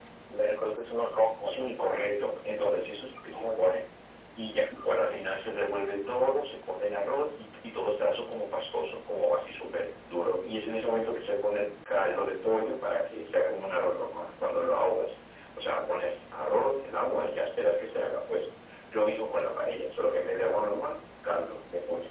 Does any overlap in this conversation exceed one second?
No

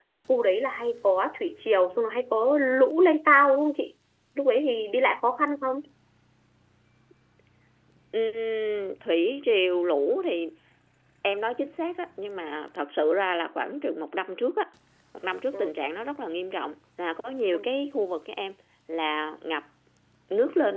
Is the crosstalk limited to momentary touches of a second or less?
Yes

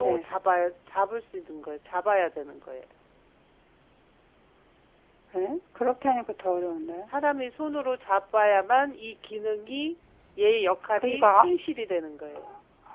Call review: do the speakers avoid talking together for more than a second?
Yes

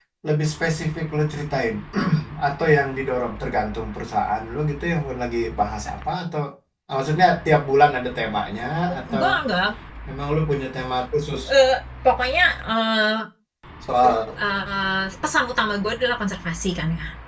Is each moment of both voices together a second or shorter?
Yes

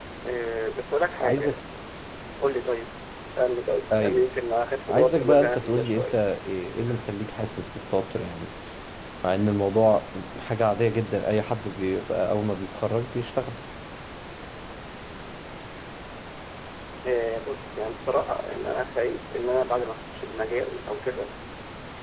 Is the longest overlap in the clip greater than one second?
Yes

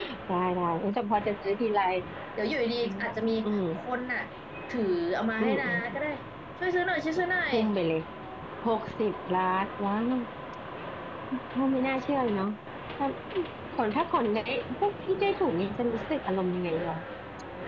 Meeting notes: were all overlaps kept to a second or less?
Yes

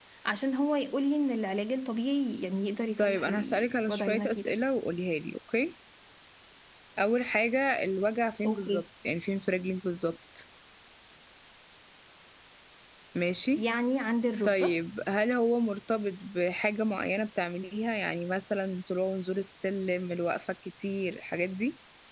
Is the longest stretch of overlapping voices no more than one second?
No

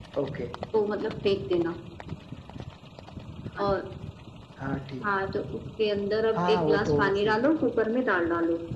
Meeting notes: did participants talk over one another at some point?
Yes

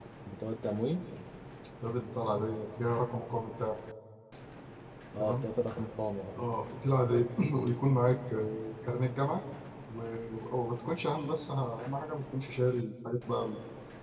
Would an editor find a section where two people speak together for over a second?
No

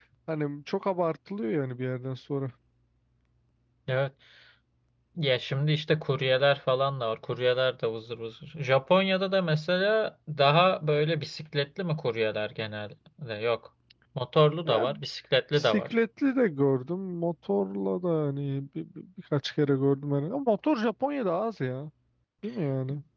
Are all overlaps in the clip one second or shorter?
Yes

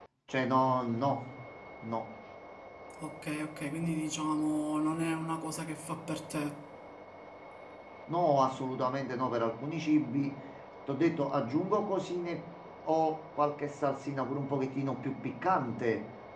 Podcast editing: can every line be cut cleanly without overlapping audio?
Yes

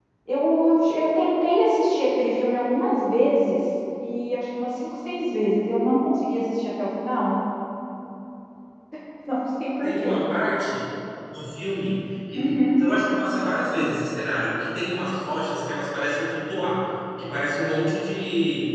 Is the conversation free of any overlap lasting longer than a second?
Yes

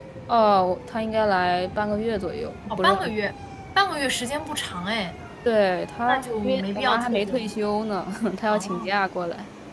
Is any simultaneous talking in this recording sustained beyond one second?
Yes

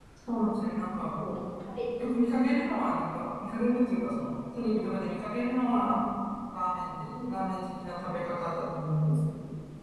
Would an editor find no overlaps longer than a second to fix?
Yes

